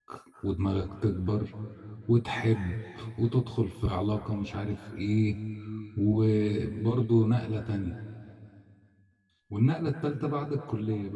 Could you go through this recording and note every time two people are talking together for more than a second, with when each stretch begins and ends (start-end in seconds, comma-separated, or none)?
none